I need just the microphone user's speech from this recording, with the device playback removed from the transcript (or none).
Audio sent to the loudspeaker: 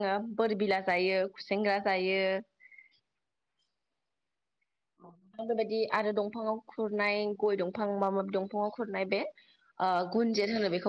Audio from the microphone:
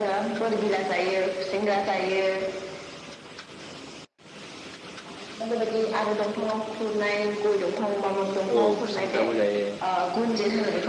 औ खुसेंग्राबो जायो।